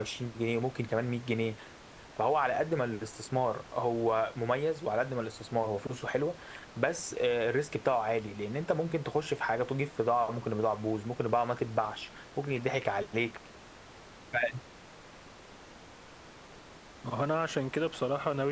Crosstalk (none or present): none